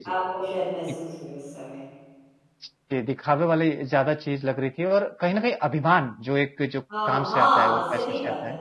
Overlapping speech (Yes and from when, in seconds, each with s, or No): Yes, from 6.9 s